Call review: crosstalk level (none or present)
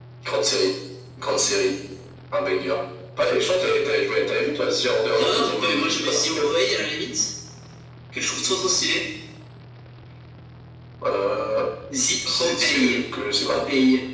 present